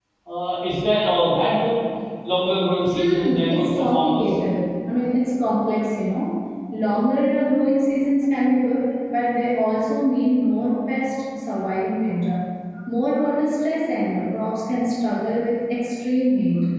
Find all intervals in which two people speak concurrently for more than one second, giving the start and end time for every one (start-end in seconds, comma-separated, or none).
3.0-4.2